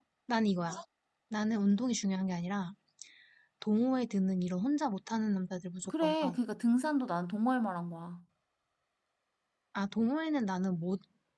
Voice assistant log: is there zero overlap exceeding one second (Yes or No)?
Yes